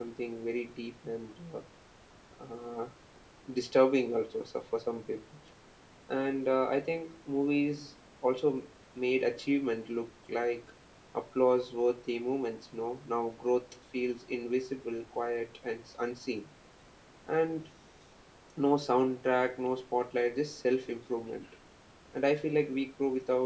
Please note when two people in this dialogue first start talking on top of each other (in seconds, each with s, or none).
none